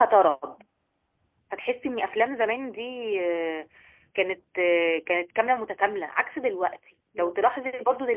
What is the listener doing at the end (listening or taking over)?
listening